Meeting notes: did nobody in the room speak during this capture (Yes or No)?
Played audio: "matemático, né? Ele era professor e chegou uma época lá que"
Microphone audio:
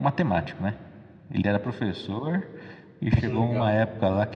No